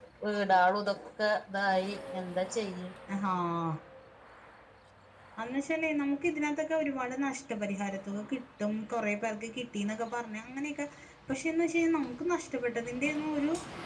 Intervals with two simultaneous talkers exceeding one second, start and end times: none

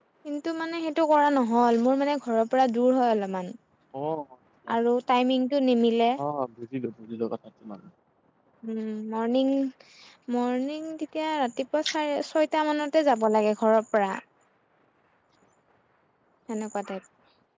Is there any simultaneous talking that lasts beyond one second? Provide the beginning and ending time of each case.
none

